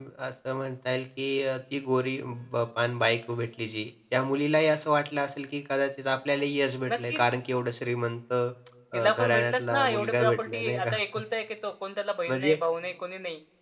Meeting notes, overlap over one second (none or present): present